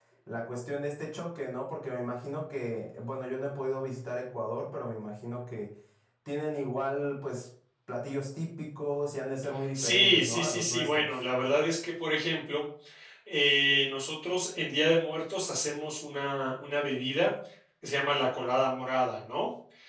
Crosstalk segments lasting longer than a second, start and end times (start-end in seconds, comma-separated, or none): 9.7-11.2